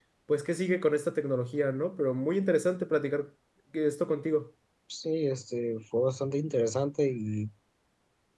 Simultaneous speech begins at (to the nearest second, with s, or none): none